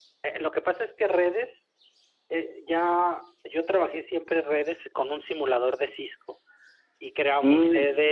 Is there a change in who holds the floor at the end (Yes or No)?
No